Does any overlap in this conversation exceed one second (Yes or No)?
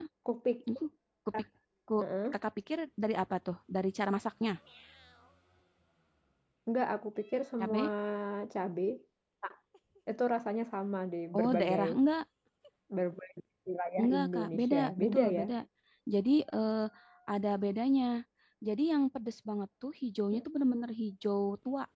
Yes